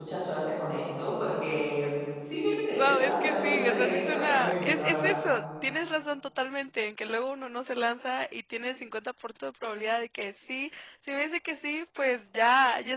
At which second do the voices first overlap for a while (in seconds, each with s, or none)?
2.5 s